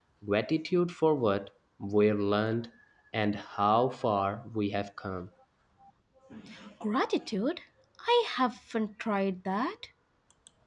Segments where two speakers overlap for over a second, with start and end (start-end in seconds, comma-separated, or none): none